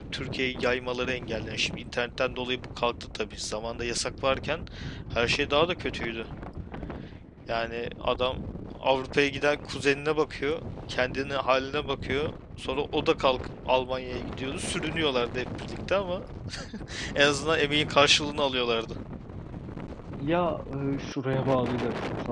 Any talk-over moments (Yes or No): No